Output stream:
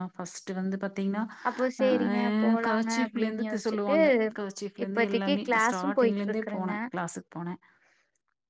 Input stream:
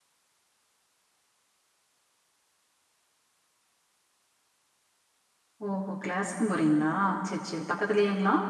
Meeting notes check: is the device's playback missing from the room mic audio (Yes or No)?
Yes